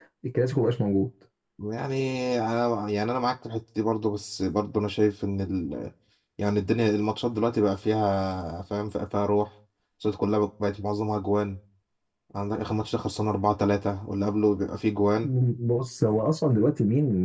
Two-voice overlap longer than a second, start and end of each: none

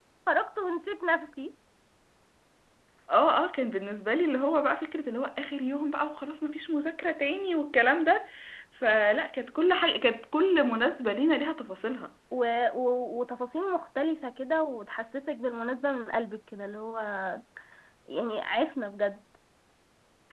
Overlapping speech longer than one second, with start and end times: none

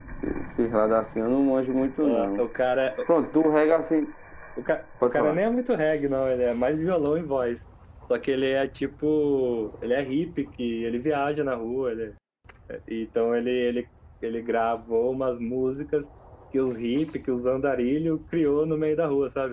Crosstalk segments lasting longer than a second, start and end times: none

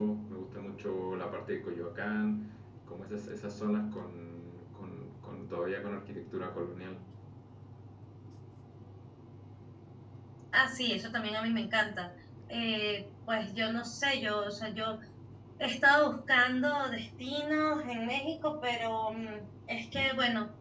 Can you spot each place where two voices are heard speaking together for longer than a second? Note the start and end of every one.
none

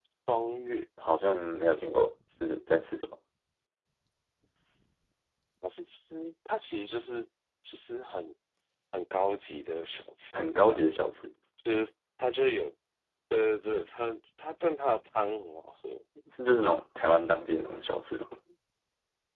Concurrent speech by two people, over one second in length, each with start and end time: none

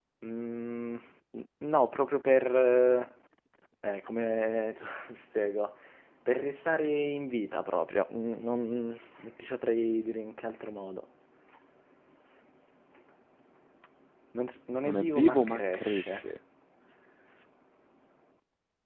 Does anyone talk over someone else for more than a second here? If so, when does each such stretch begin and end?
14.8-16.2

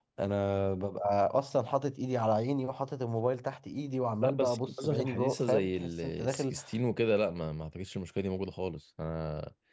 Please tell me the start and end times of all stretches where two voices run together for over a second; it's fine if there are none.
4.2-6.5

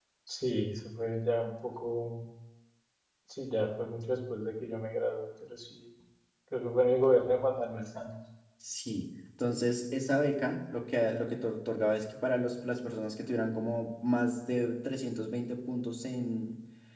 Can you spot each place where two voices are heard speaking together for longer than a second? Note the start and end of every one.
none

